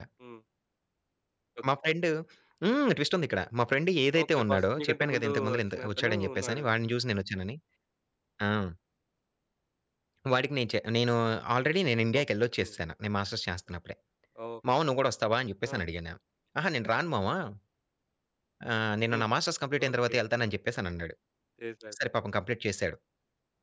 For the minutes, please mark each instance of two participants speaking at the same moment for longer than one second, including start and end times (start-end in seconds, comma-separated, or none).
4.2-6.7